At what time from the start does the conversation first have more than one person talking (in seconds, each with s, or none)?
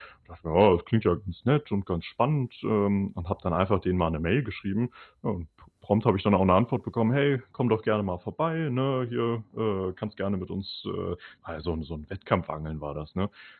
none